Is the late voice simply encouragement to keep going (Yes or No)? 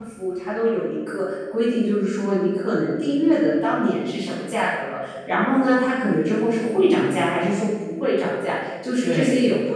Yes